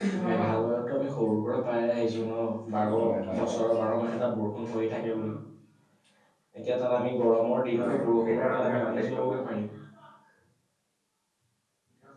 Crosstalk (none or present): present